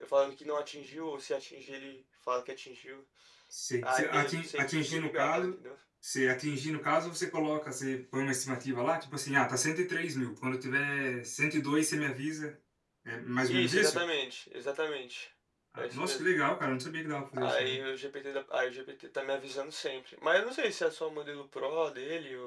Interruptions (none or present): present